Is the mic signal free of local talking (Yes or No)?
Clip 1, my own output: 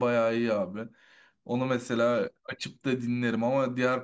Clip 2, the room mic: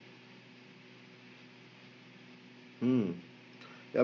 No